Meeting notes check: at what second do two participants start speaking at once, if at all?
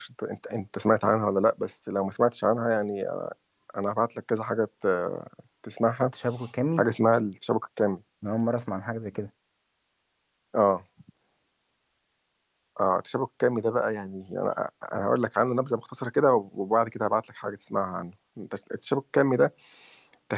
none

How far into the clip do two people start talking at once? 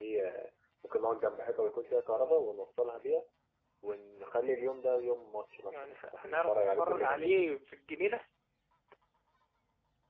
6 s

